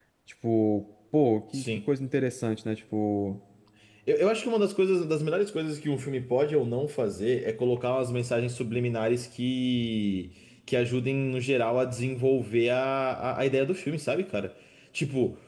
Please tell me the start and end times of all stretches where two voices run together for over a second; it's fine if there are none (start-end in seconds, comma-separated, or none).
none